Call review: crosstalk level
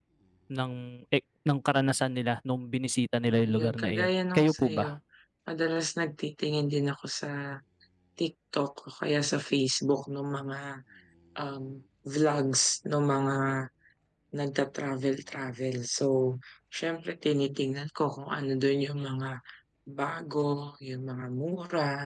present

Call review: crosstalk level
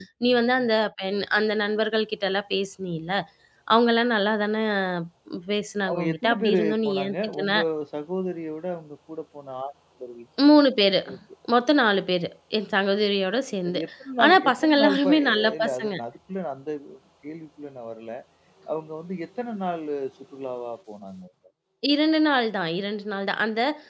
present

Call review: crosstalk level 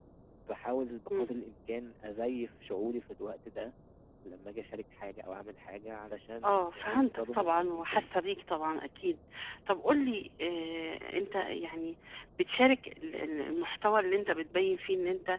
present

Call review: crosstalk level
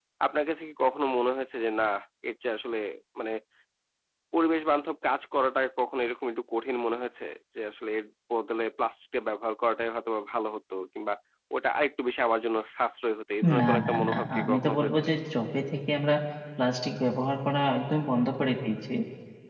present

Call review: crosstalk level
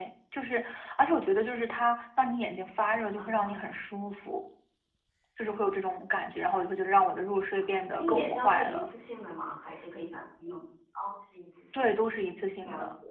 present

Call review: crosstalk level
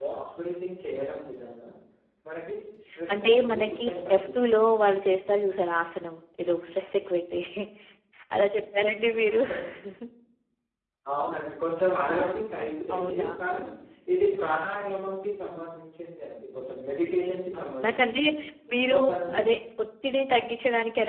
present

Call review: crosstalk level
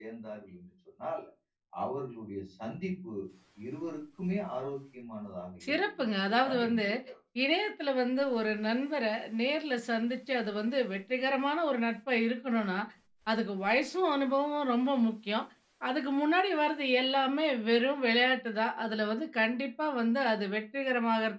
present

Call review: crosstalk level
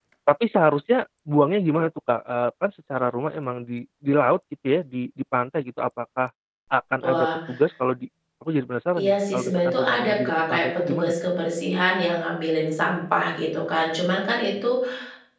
present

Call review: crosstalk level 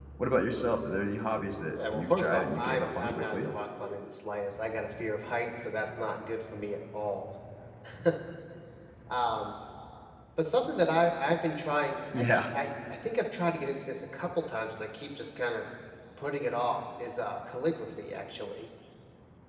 present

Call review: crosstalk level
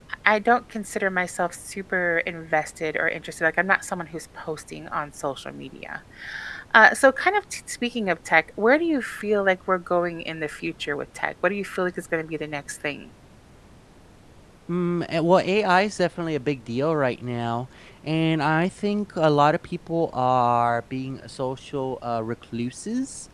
none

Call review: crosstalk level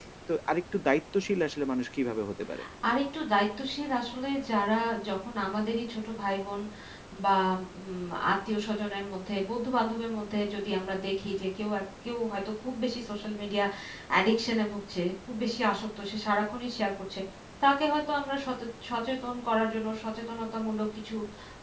none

